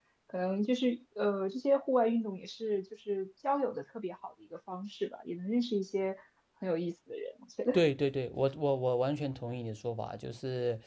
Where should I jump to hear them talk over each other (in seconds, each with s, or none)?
none